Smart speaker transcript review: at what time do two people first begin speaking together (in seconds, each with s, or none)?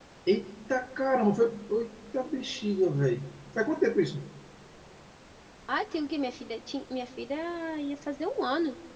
none